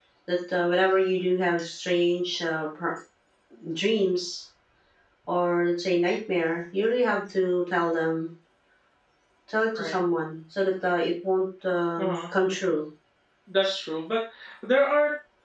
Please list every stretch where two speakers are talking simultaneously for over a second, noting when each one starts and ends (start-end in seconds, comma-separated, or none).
none